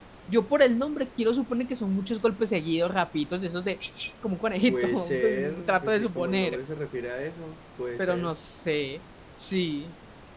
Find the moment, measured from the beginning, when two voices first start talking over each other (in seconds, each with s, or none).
4.7 s